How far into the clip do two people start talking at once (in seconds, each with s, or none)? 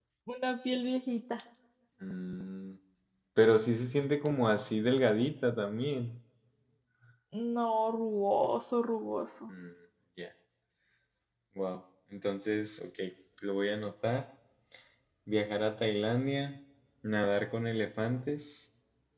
none